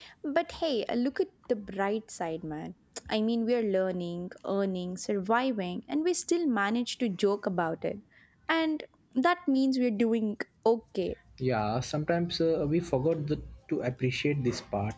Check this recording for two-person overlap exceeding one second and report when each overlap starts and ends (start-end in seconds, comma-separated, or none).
none